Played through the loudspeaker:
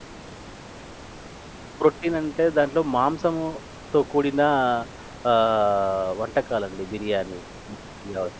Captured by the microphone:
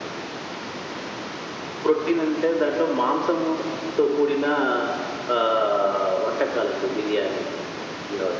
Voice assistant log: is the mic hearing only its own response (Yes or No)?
Yes